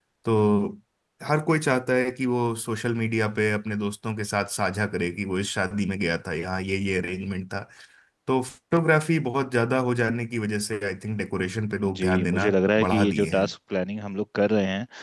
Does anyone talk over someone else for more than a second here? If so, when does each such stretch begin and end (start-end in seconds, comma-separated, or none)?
12.0-13.5